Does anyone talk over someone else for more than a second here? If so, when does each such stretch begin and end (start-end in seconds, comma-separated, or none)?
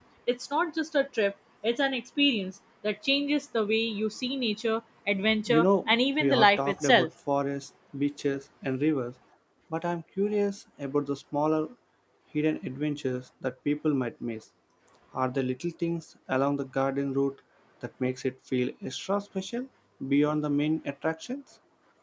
5.5-7.1